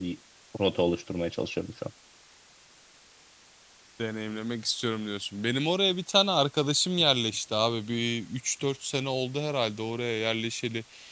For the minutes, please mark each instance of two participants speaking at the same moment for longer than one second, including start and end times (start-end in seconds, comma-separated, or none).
none